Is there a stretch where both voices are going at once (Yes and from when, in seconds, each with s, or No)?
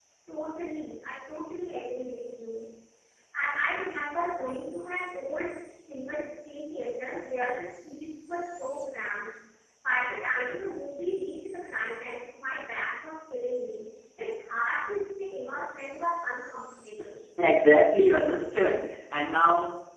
No